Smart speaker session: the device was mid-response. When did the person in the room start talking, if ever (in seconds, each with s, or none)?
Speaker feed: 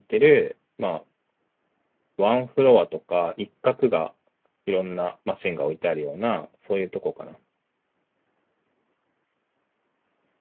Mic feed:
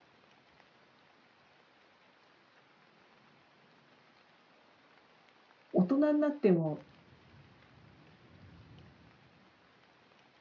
5.7 s